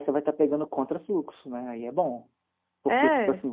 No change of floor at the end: Yes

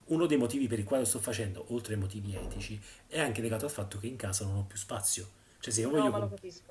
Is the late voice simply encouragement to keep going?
No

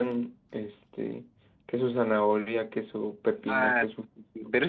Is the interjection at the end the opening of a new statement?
Yes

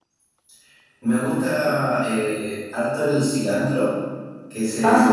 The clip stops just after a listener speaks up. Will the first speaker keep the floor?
Yes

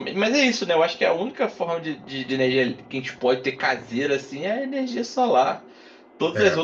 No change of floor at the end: Yes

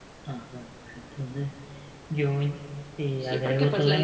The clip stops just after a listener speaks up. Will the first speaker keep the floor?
No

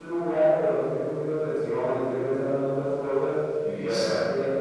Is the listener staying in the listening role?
Yes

